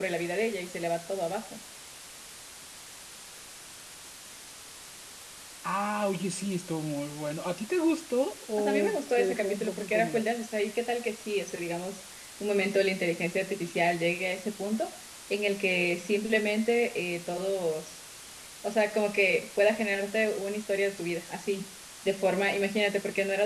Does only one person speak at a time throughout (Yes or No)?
No